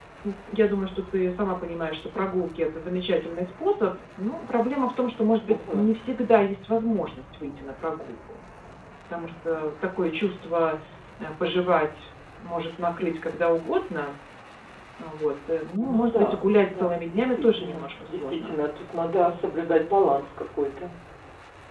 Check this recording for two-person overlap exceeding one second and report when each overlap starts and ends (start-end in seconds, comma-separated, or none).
15.8-18.5